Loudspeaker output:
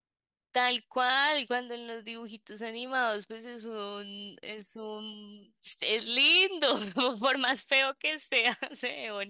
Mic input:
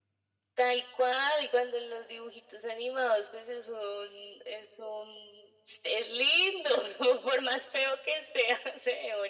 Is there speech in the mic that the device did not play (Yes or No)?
No